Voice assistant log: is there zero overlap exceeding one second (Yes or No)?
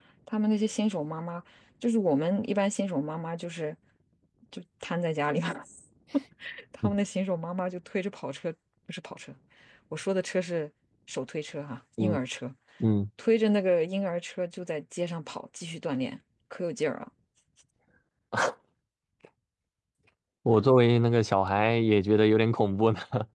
Yes